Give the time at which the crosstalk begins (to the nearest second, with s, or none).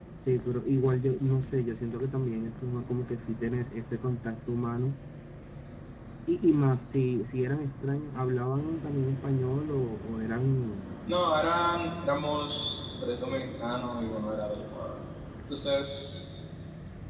none